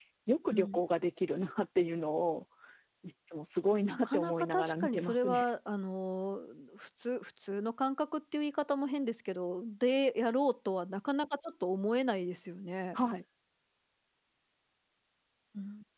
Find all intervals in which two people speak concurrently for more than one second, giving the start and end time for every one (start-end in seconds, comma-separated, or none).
3.9-5.5